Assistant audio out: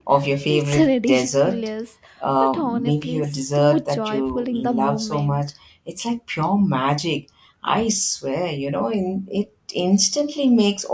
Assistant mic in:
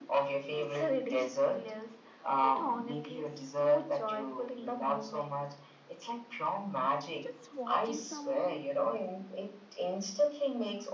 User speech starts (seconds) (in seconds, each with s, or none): 7.2 s